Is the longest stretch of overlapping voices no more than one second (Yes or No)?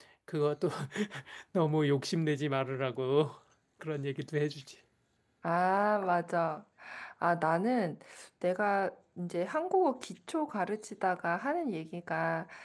Yes